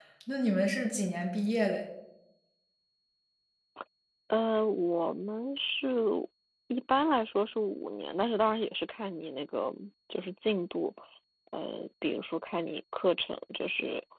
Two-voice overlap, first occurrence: none

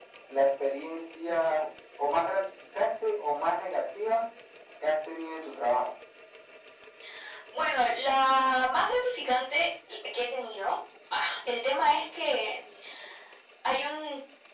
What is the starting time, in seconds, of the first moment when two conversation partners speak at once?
none

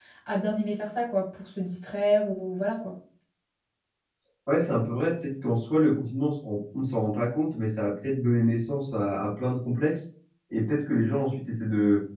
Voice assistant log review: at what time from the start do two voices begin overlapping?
none

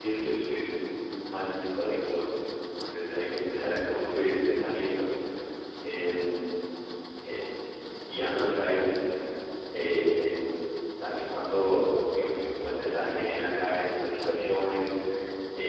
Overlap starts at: none

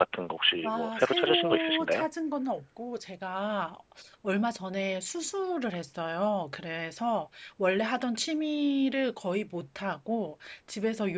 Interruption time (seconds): 0.7 s

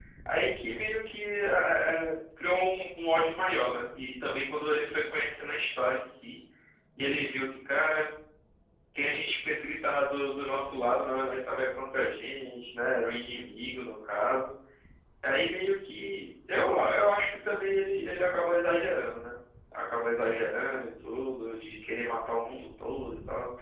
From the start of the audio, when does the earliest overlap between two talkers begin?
none

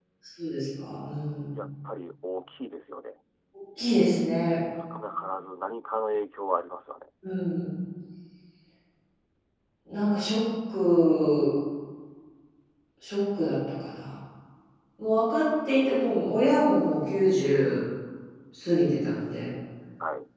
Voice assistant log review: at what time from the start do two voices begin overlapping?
none

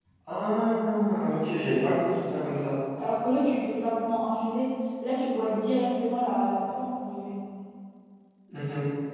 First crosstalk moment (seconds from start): none

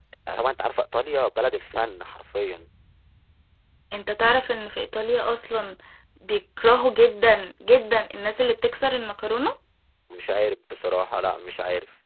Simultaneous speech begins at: none

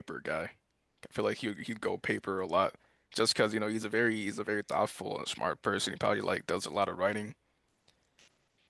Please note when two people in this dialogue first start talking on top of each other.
none

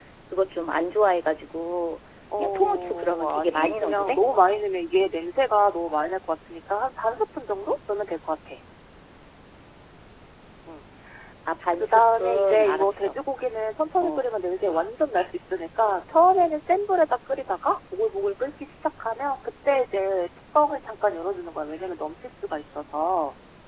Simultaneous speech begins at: 2.4 s

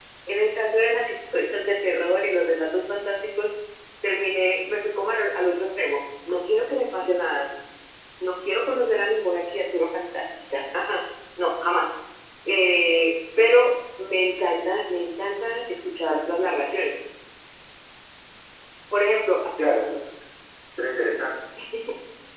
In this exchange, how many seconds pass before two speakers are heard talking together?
none

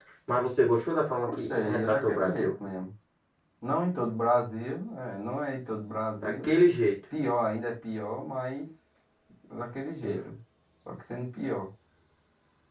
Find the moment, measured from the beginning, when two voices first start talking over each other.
1.3 s

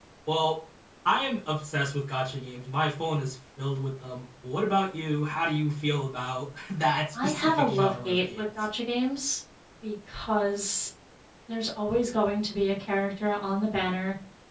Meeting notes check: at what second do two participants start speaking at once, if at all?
7.1 s

